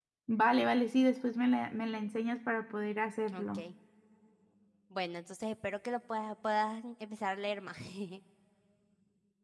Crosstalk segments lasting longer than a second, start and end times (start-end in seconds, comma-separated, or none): none